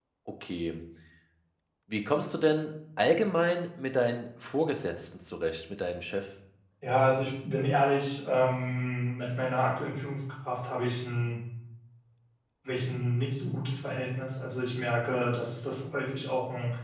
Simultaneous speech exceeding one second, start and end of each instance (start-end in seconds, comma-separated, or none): none